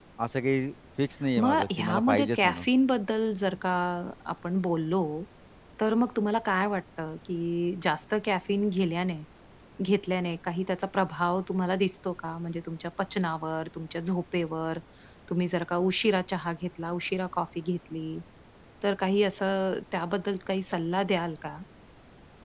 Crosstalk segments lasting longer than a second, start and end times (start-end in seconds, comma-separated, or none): 1.4-2.6